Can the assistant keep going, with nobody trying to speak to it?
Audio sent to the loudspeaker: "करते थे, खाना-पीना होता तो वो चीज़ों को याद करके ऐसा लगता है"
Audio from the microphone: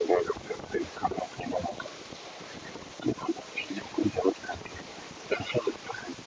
Yes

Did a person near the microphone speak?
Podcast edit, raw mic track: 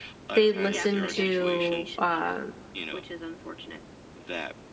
Yes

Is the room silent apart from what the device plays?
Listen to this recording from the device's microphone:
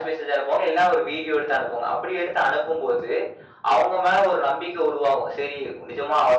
Yes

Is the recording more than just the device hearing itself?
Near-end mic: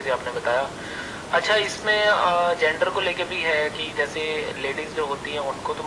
No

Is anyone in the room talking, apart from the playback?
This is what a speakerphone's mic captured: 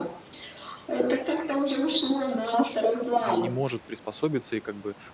Yes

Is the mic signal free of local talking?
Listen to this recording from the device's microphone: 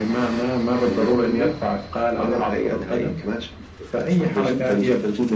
Yes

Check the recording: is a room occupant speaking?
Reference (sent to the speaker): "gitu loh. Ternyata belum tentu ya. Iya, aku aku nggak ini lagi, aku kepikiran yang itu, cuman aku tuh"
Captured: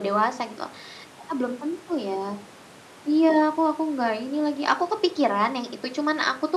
No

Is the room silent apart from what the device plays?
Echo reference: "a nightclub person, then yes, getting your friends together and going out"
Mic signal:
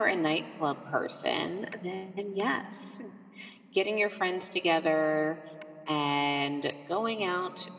Yes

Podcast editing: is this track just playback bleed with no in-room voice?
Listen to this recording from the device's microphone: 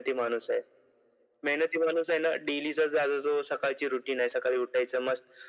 Yes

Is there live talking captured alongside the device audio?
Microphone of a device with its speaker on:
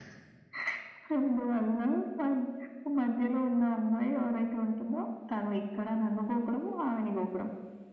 No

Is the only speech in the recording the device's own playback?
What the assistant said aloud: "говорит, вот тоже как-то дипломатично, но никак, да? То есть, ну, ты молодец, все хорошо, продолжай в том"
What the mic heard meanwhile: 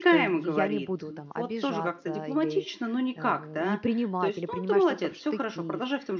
No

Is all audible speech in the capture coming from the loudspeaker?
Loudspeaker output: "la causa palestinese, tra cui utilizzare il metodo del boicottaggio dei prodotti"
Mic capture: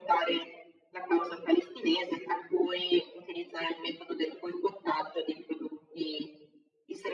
Yes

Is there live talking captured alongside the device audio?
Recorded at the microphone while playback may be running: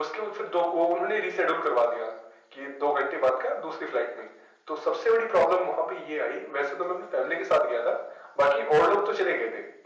No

